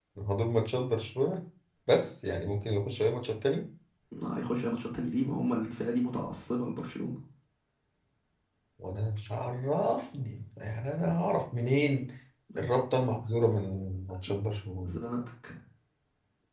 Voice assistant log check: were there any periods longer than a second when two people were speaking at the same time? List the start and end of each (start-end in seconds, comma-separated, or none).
none